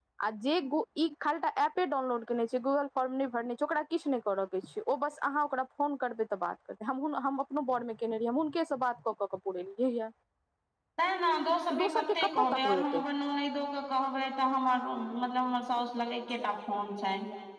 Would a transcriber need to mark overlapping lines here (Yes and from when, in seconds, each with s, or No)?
Yes, from 11.8 s